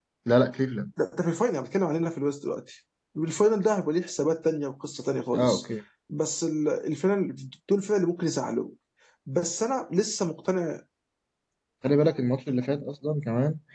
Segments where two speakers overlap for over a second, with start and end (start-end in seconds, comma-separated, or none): none